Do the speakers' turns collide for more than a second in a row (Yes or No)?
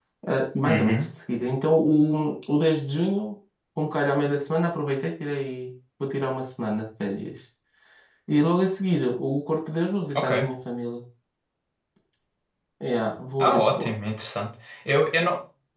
No